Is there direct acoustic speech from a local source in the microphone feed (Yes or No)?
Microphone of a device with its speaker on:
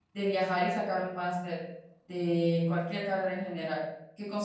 Yes